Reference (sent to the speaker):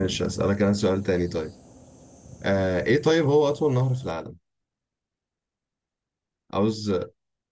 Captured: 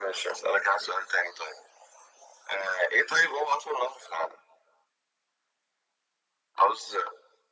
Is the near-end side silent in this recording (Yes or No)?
Yes